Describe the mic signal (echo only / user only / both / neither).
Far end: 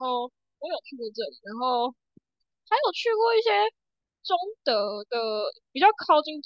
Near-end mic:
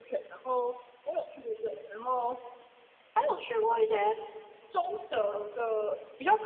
echo only